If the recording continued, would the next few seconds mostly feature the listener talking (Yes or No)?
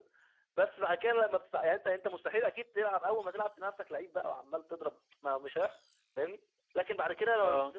No